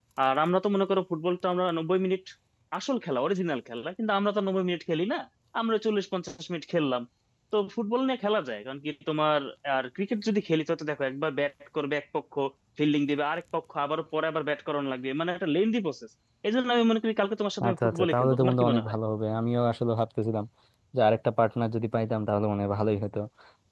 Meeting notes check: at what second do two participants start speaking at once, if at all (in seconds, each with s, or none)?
17.6 s